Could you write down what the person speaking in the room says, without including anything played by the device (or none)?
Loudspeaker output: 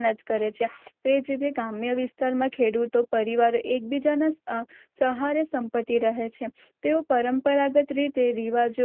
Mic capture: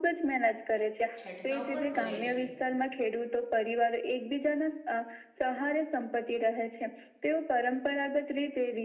છંટકાવ પણ કરે છે